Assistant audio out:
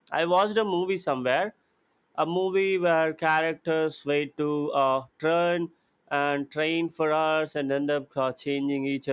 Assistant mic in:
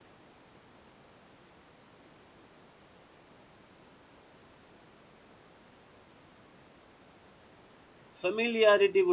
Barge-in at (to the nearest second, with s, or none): 8 s